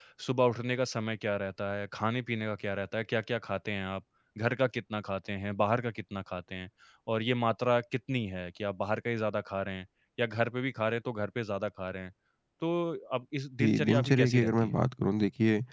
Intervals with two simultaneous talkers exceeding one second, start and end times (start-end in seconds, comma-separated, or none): 13.6-14.8